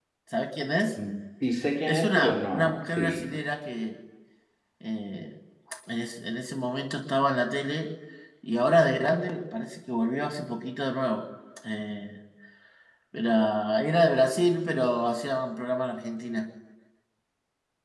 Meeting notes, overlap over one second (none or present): present